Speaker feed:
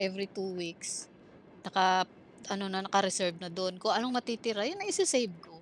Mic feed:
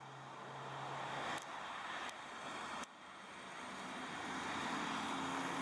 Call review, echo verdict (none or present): none